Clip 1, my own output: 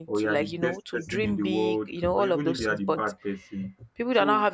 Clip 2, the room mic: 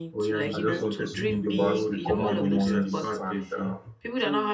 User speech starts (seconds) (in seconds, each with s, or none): 0.5 s